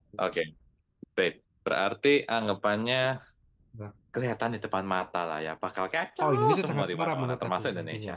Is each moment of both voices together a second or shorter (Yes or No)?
No